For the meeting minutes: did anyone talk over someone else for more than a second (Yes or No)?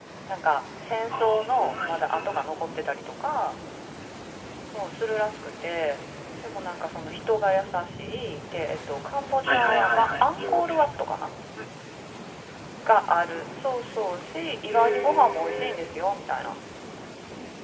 Yes